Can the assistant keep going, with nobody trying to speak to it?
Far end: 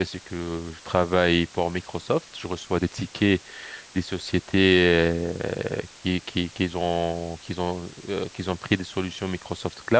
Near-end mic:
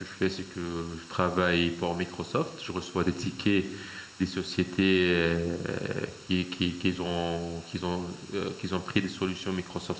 Yes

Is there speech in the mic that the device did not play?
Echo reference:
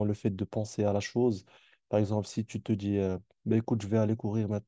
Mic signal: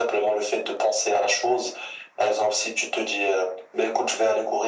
No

